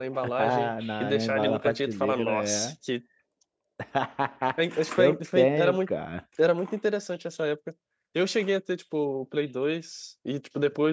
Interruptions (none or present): present